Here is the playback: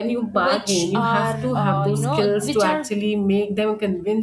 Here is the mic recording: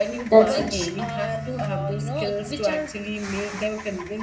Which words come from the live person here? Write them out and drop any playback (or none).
that's nice.